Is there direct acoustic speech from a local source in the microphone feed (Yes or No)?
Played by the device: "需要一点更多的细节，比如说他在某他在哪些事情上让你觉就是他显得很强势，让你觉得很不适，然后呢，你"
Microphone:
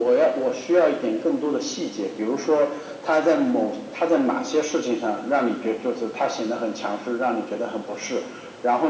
No